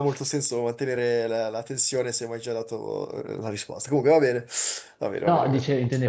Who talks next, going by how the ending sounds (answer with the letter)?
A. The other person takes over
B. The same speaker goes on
A